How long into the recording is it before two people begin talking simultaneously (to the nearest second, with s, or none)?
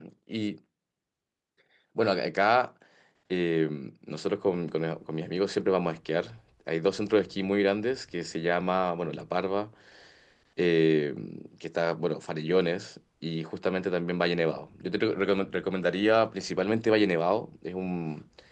none